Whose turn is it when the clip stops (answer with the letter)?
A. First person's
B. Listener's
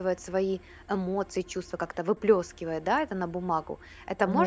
B